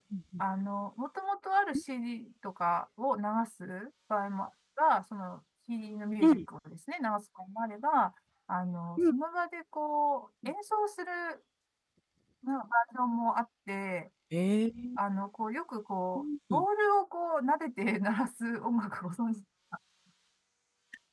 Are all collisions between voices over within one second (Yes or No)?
Yes